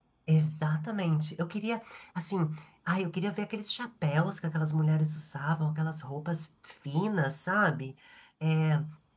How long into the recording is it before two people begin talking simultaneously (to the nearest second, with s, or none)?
none